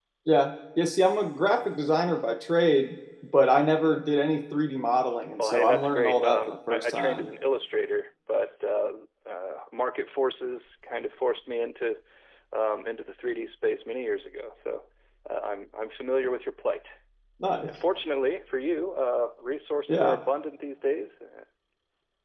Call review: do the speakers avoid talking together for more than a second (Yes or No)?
No